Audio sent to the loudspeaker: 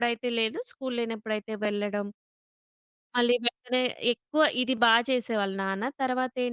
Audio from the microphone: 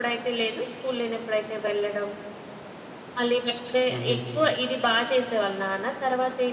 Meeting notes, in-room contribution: present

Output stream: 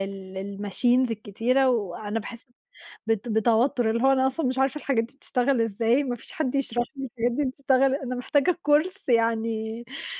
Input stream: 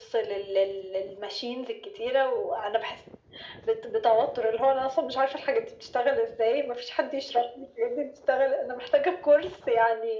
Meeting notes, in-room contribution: none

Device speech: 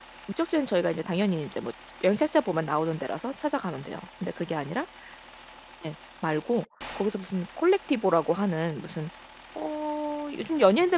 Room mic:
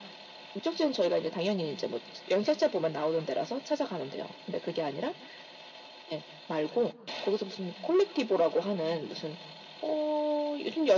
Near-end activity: none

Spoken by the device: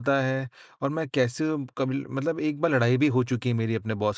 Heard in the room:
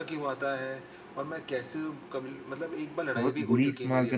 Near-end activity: present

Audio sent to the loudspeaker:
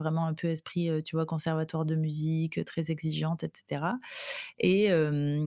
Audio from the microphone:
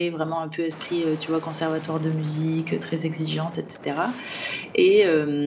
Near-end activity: none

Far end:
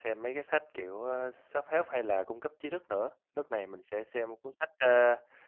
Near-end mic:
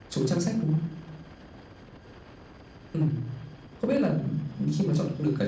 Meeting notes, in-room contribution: present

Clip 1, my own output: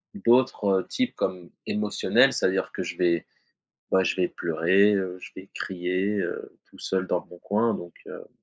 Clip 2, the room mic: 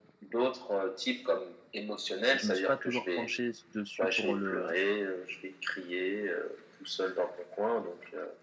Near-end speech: present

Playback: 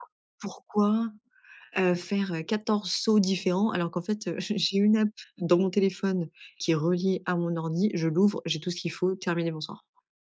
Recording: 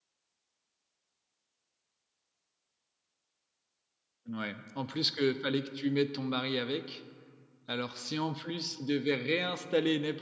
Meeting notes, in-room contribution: present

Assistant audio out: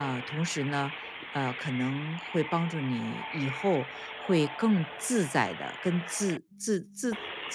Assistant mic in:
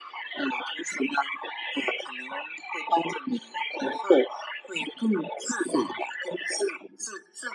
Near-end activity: none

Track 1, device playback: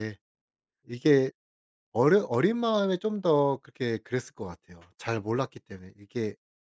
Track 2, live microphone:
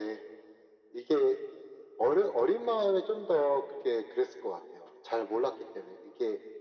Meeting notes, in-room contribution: none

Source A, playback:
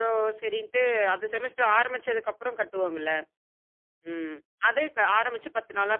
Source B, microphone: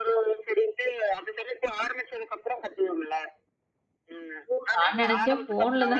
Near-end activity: present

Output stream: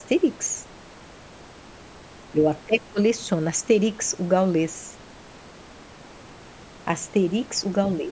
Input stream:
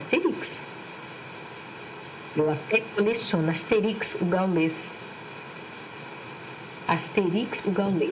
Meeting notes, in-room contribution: none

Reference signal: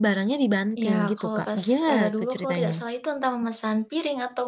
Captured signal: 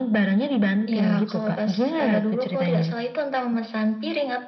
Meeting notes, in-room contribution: none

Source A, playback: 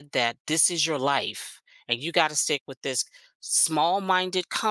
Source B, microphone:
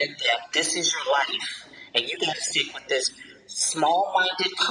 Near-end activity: none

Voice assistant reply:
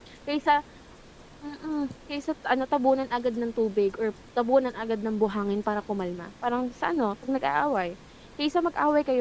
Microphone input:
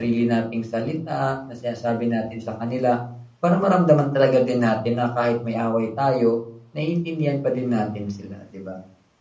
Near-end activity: present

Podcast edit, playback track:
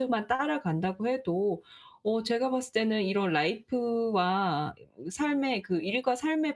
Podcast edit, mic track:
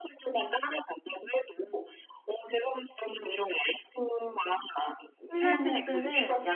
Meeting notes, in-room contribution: present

